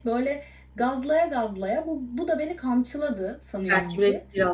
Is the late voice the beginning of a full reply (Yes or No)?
Yes